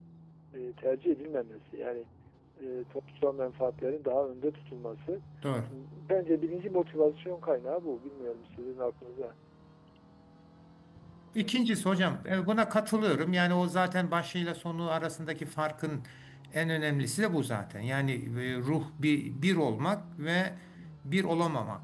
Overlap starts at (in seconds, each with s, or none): none